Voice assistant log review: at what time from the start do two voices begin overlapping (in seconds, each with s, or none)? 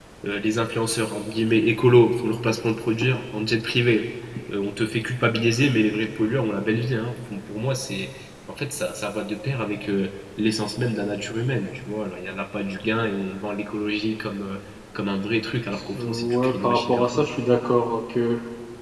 15.7 s